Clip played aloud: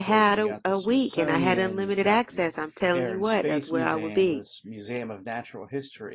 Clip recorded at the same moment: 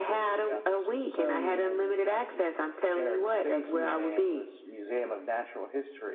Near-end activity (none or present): none